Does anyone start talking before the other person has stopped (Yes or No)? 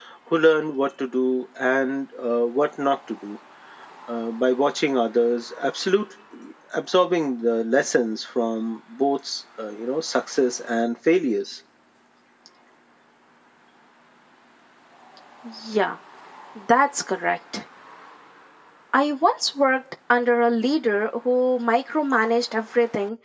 No